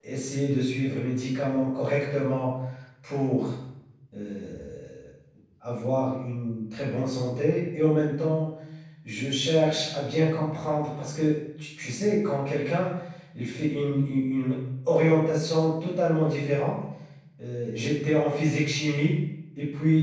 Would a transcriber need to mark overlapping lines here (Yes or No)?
No